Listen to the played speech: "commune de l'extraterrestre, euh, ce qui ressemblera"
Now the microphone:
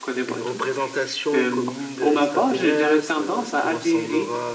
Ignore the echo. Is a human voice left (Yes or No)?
Yes